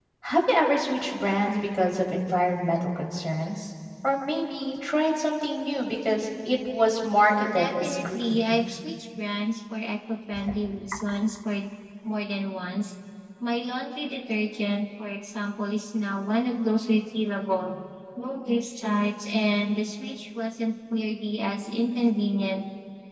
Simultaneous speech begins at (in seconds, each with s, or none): 7.3 s